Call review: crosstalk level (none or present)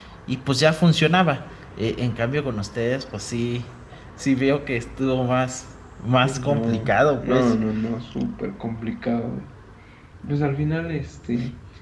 present